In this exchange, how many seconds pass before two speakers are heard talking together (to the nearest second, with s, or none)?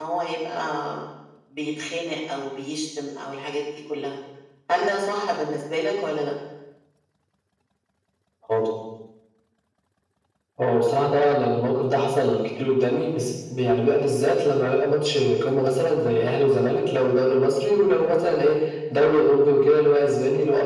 none